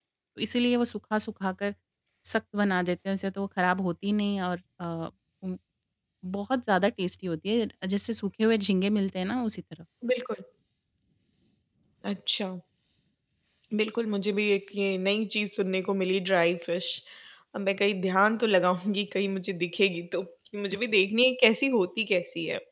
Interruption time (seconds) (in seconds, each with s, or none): none